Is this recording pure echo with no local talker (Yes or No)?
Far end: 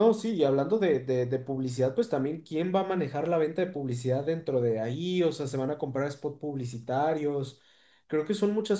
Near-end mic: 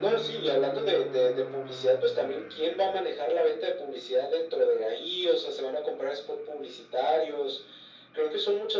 Yes